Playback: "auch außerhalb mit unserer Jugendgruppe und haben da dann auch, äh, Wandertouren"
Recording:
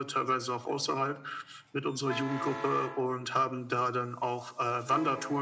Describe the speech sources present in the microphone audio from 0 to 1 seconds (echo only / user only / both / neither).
echo only